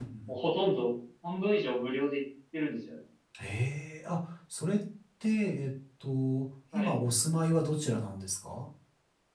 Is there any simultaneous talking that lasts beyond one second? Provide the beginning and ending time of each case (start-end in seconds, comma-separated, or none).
none